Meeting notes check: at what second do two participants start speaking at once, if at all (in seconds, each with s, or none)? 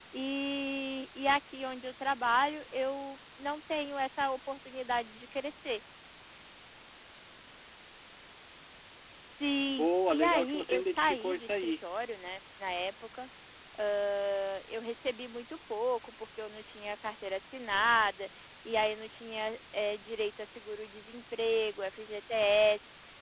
9.7 s